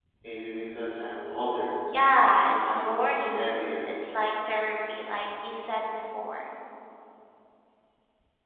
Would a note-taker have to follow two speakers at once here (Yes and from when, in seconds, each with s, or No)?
Yes, from 2.3 s